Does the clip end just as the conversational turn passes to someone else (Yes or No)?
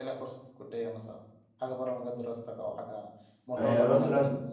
Yes